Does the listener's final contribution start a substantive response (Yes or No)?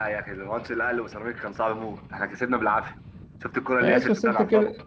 Yes